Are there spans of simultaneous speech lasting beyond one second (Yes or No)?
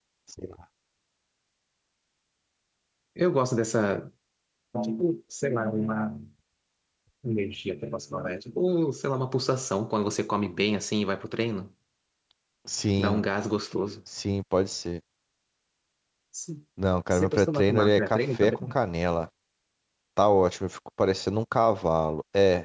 Yes